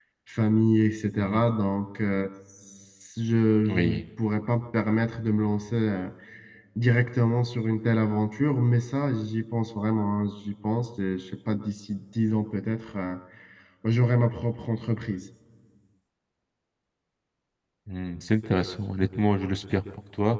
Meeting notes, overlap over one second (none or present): none